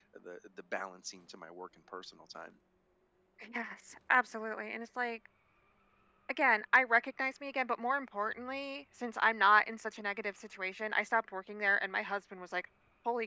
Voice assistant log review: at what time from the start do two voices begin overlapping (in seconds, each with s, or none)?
none